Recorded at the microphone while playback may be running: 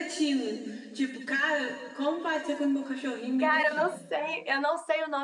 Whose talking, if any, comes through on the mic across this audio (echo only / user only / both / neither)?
both